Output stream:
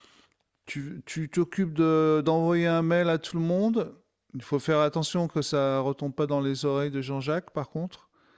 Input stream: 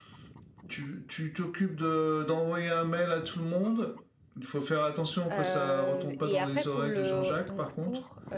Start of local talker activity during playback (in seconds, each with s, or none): 5.3 s